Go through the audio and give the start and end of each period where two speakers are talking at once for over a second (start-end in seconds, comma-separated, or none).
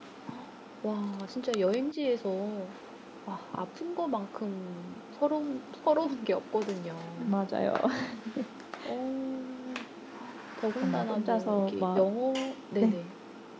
10.8-12.0